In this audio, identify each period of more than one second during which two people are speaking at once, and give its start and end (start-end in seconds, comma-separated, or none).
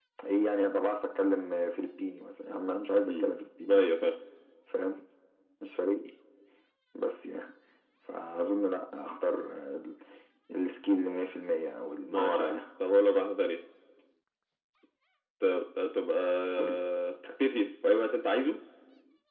none